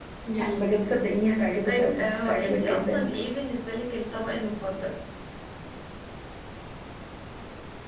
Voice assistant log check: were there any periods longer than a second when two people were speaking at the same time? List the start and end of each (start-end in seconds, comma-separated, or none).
1.6-3.2